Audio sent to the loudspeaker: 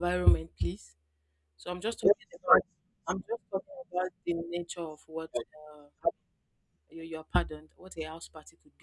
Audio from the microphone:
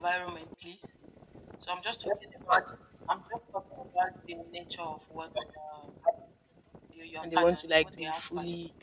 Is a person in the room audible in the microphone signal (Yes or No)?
Yes